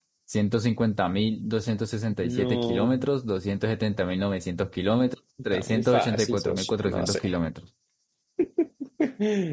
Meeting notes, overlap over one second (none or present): present